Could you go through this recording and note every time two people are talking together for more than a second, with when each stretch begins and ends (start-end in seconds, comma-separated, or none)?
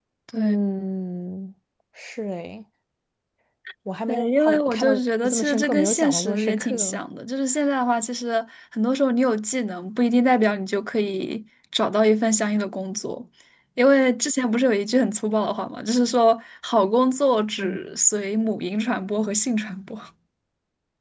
4.1-7.0